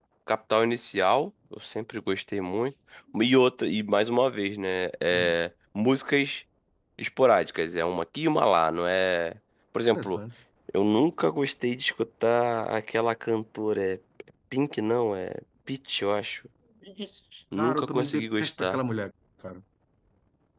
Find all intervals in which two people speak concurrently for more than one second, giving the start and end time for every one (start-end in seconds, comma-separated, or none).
17.6-18.8